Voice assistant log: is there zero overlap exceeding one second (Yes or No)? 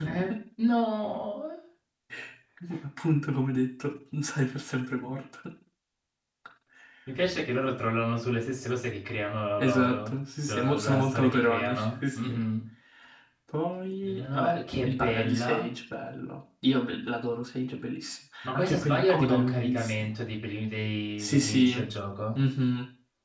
No